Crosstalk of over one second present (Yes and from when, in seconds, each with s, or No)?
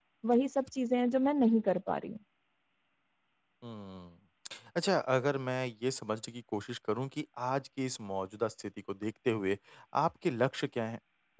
No